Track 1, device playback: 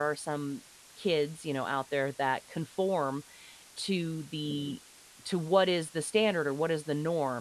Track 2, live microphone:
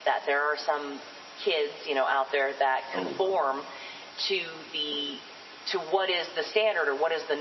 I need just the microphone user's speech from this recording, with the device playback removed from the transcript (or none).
Oh, wow.